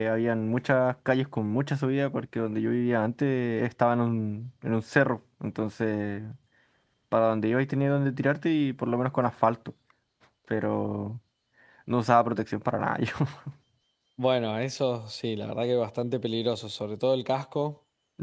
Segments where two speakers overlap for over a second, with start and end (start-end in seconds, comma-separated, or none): none